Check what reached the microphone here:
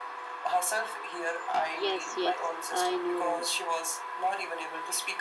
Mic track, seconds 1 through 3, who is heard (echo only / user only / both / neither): both